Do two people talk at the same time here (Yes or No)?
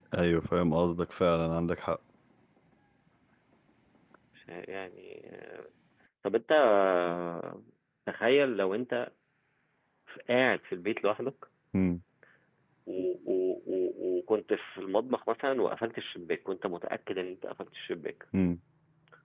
No